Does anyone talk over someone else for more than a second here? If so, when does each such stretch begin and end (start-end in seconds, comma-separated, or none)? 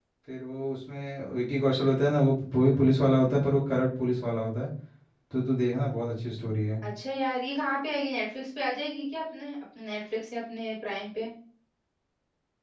none